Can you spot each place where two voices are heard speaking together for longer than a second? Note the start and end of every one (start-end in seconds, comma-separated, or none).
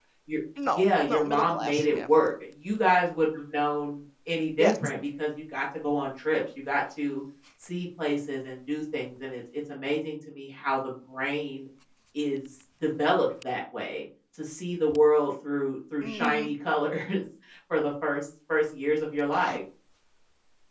0.7-2.1